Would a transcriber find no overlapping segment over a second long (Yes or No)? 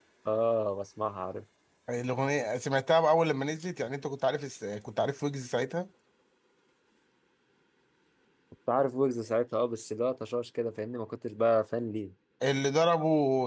Yes